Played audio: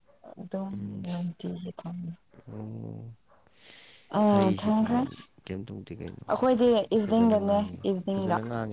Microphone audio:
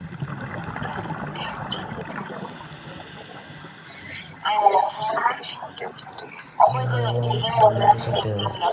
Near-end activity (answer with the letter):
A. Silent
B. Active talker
B